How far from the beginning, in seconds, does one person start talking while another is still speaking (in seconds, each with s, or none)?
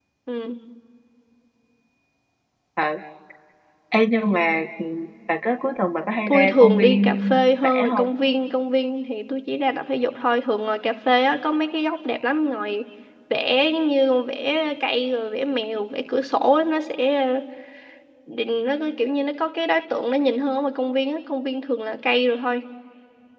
6.3 s